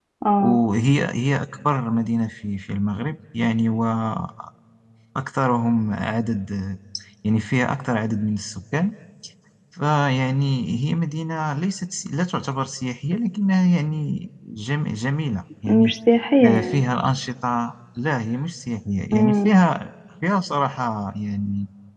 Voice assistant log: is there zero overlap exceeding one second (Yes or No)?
Yes